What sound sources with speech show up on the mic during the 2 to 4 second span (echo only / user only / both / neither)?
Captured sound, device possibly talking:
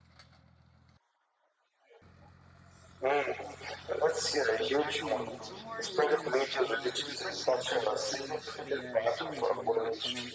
echo only